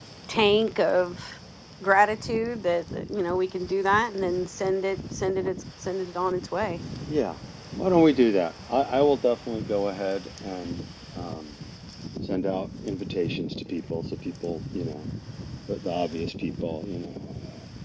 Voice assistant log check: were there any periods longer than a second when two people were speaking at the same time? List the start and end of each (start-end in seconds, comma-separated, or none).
none